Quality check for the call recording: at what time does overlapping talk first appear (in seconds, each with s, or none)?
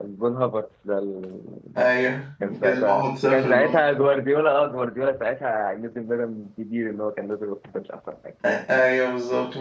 2.4 s